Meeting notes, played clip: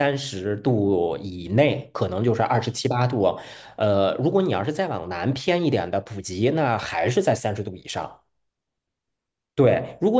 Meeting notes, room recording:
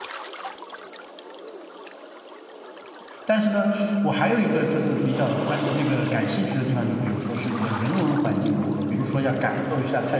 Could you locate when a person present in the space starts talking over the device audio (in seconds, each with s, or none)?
3.2 s